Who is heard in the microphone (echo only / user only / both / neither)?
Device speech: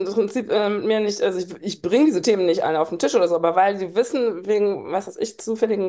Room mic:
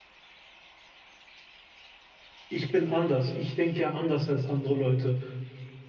user only